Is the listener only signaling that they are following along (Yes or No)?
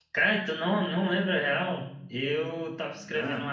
Yes